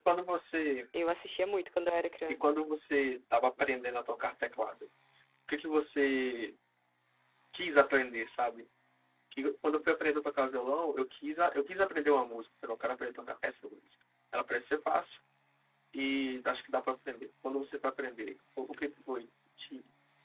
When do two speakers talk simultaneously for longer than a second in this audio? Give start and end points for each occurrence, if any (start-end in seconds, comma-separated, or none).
none